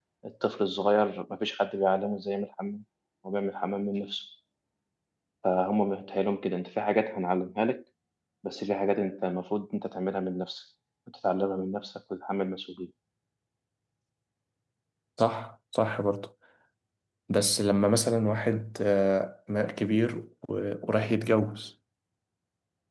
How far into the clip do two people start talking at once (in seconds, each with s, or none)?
none